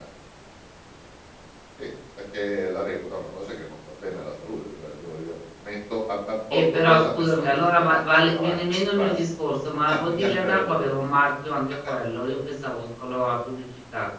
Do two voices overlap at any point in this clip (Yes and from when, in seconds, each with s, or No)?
Yes, from 6.5 s